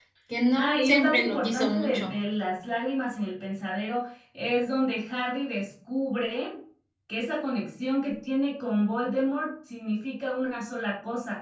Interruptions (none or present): present